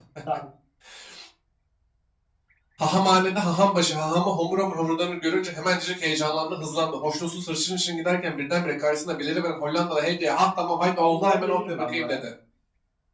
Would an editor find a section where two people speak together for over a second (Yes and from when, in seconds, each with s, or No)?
Yes, from 11.0 s